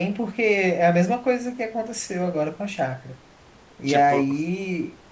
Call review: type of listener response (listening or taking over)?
listening